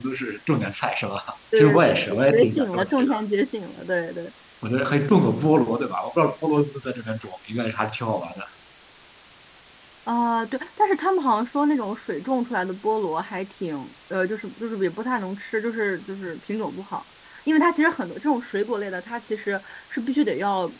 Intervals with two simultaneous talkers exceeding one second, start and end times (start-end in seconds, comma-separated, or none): 1.6-3.1